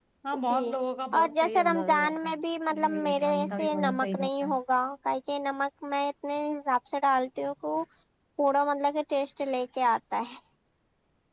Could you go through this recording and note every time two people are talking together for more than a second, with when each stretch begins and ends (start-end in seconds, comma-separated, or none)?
1.2-2.4, 2.8-4.4